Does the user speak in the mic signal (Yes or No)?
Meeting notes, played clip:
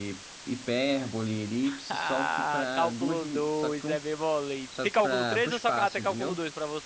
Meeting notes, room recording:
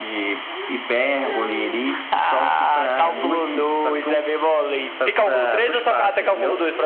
No